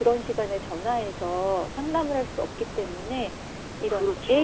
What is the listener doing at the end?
listening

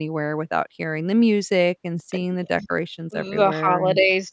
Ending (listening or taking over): taking over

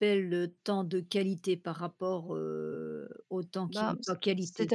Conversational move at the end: taking over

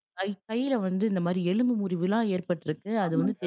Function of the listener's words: listening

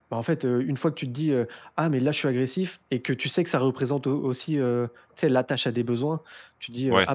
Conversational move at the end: listening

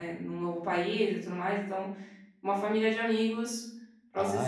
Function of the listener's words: taking over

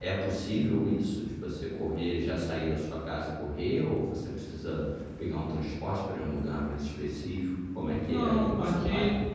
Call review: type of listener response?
taking over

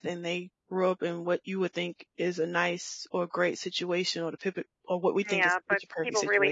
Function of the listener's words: taking over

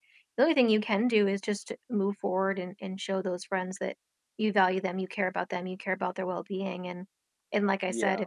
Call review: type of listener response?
listening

